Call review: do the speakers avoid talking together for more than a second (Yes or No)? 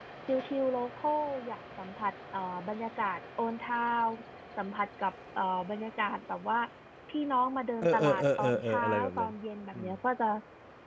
No